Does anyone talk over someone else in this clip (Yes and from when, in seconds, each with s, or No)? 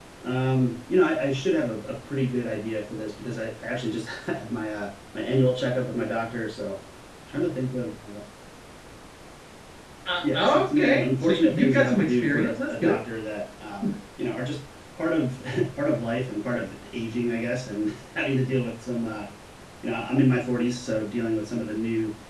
Yes, from 10.3 s